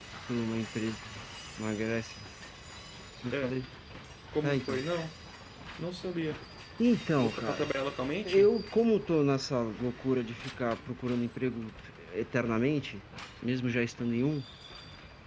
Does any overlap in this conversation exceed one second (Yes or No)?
No